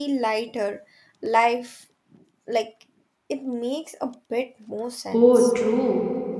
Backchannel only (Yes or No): No